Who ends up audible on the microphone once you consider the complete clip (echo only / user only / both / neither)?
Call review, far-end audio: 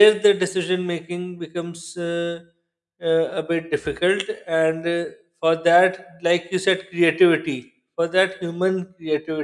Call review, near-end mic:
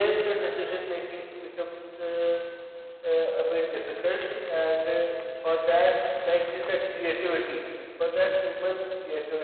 both